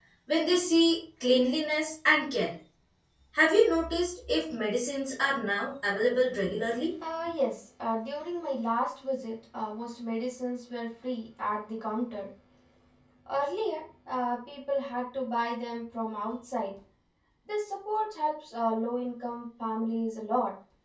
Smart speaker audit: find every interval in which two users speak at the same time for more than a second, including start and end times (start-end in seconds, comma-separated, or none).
none